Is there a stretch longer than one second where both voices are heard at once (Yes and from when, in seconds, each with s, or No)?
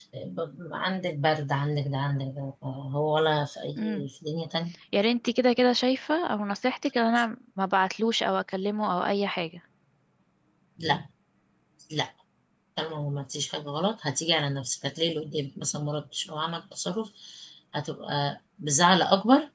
No